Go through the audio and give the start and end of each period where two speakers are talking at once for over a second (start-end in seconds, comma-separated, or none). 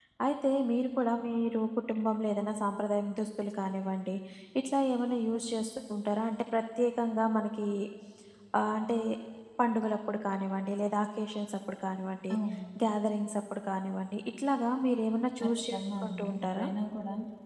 15.4-16.6